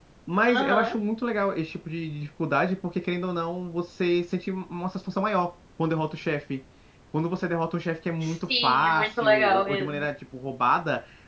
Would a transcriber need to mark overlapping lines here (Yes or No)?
Yes